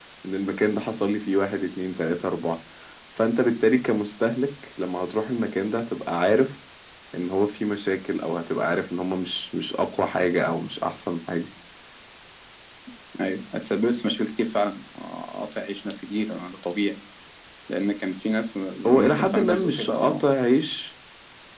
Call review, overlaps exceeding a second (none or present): present